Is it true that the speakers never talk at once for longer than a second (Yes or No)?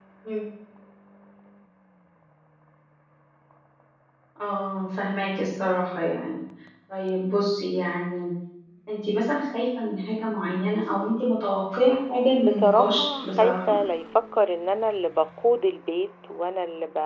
No